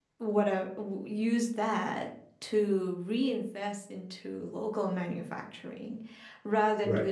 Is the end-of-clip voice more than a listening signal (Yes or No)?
No